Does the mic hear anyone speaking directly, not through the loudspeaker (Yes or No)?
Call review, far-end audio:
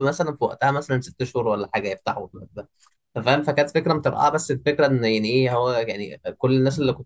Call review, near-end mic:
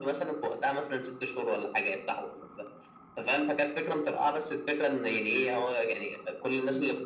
No